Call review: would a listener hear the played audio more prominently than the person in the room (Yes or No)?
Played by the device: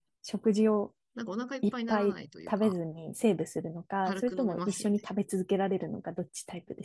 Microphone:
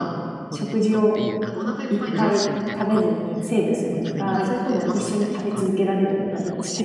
Yes